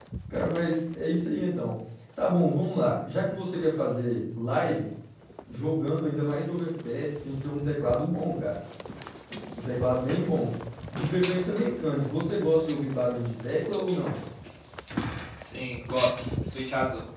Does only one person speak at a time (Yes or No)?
Yes